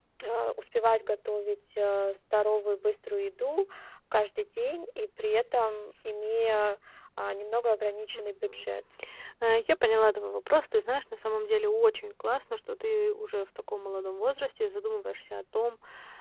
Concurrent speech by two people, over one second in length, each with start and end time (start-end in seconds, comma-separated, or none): none